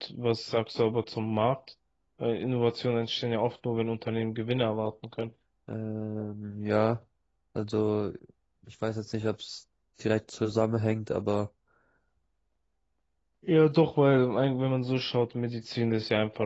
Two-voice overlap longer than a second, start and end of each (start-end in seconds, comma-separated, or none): none